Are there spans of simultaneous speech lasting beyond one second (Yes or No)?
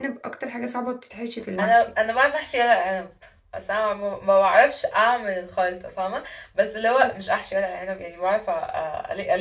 No